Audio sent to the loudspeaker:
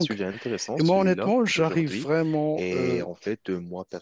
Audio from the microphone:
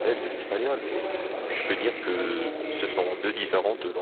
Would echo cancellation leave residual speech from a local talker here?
Yes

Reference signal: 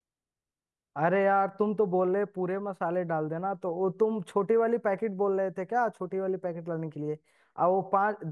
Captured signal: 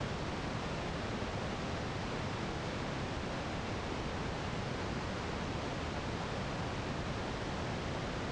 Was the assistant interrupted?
No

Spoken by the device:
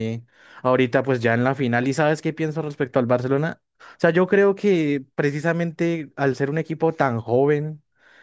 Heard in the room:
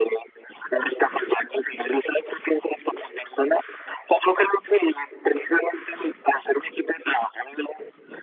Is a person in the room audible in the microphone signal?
No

